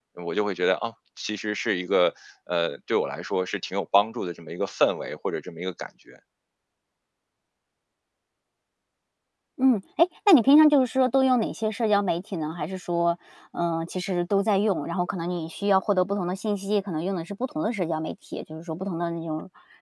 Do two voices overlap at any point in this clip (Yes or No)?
No